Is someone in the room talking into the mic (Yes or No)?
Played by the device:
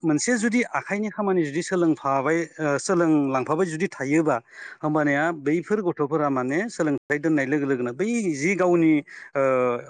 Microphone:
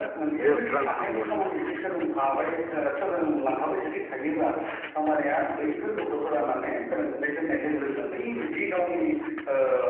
Yes